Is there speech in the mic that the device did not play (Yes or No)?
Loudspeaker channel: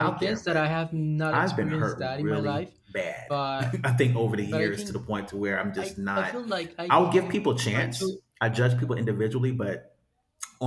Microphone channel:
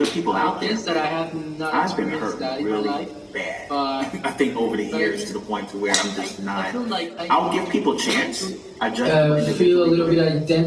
Yes